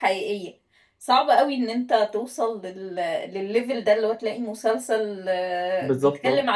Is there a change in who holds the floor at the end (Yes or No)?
No